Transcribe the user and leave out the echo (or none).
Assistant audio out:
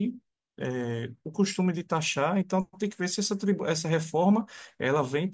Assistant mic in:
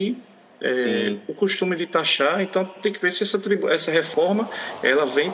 sim,